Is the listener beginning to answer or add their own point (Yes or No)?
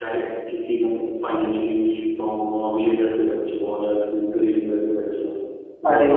No